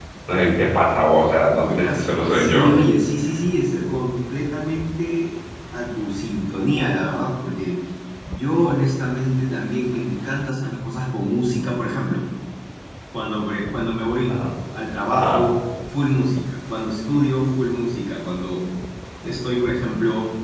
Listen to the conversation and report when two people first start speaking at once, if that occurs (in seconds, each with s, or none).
1.5 s